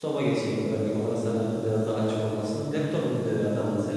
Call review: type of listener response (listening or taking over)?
listening